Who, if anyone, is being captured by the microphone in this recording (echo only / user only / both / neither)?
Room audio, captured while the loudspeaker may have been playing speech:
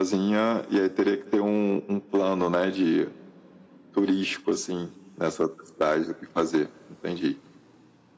echo only